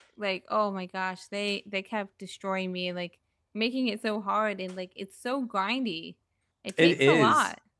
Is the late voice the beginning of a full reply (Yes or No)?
Yes